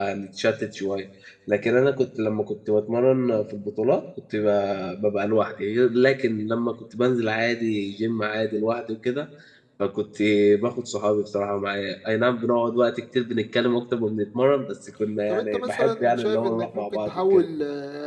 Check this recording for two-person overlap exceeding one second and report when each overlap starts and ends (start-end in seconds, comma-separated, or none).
15.3-17.4